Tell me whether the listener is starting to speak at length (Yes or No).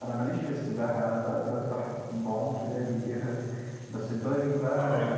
No